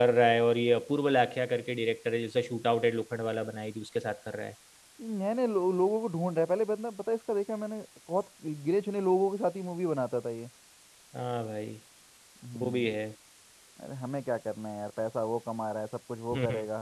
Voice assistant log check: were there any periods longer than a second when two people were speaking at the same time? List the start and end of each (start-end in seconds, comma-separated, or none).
none